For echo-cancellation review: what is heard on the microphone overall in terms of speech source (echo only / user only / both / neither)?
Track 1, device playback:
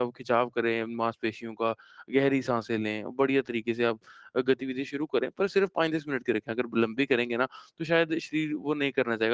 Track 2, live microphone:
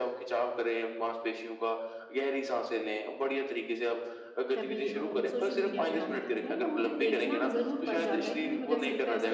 both